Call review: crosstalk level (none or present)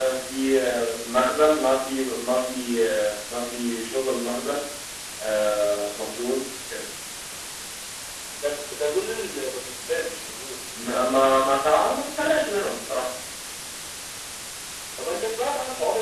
none